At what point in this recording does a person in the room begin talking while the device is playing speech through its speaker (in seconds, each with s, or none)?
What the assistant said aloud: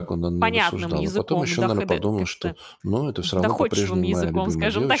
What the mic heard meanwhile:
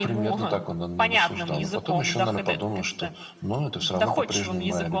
none